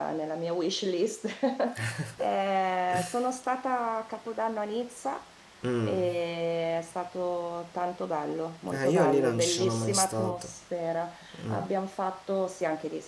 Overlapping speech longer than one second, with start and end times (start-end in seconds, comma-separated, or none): 8.7-10.5